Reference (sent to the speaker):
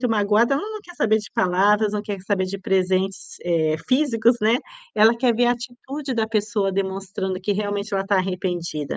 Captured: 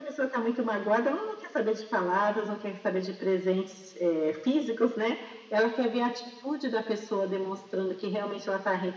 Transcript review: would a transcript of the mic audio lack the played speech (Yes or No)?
No